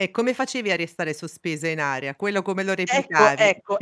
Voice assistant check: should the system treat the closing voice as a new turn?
Yes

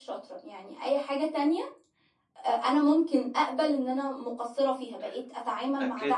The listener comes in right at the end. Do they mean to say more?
Yes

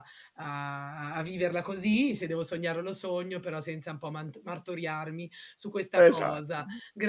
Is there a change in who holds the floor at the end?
No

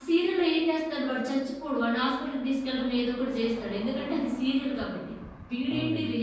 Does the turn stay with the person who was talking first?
Yes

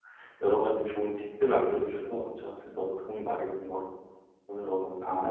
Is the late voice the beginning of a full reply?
Yes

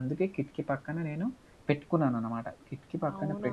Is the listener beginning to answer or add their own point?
No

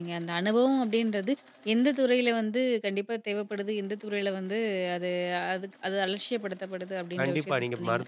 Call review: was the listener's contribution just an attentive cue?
No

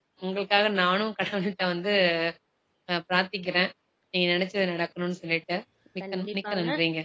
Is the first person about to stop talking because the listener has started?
Yes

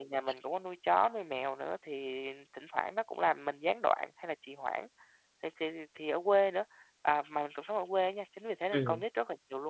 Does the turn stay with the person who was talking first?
Yes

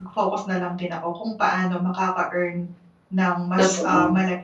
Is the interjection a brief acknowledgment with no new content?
Yes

